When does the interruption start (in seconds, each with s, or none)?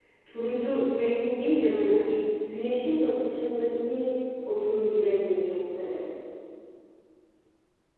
none